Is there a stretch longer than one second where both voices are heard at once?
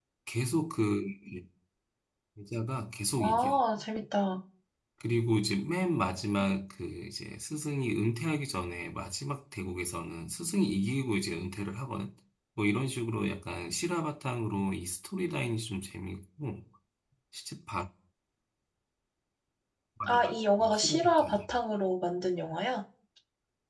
Yes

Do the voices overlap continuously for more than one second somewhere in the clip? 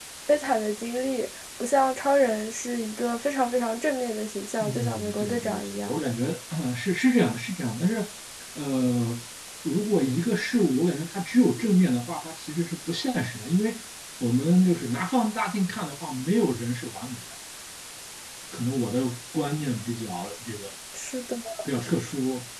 Yes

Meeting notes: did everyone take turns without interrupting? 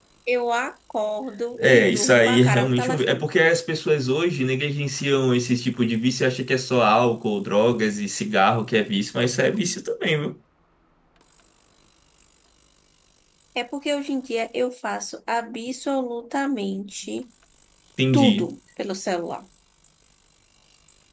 No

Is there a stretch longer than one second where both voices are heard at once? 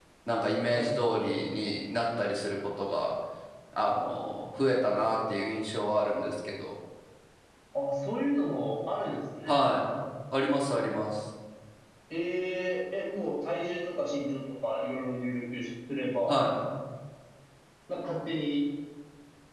No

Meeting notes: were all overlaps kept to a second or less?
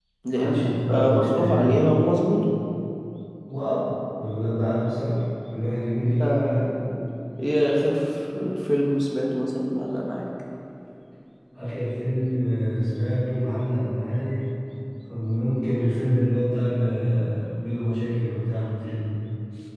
No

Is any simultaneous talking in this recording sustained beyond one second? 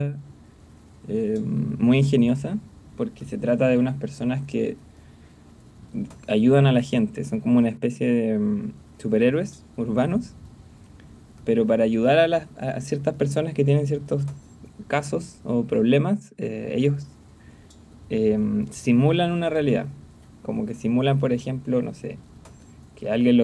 No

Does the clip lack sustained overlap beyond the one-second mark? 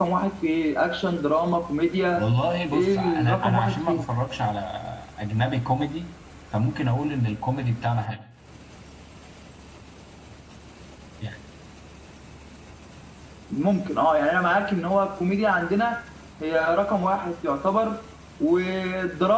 No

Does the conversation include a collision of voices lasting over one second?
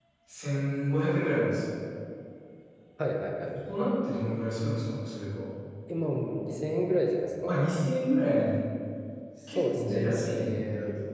Yes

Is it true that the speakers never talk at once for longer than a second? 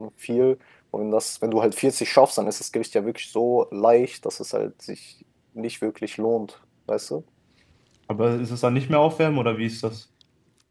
Yes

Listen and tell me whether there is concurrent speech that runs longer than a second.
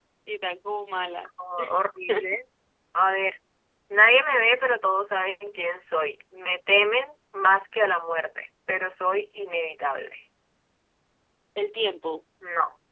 No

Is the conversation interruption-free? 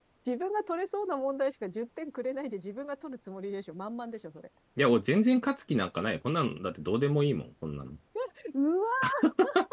Yes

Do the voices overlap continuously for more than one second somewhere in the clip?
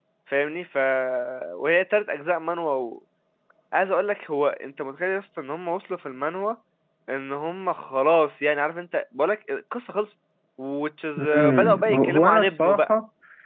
Yes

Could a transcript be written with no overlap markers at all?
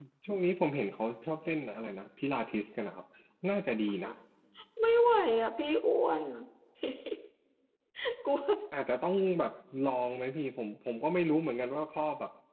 Yes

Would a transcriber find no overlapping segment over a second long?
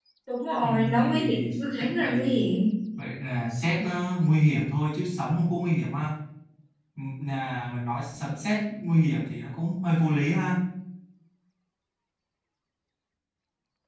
No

